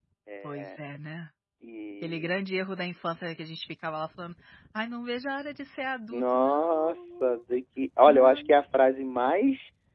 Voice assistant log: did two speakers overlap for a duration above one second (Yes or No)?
Yes